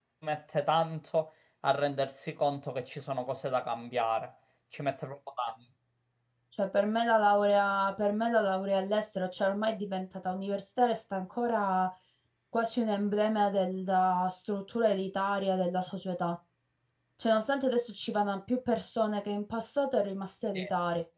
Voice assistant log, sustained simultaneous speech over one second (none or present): none